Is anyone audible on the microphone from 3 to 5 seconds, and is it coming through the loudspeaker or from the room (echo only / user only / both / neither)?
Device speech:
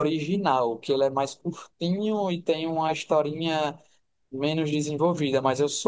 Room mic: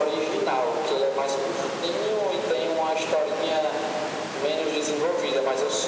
echo only